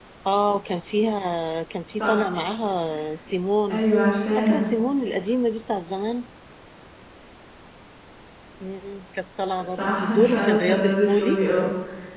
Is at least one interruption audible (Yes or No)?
Yes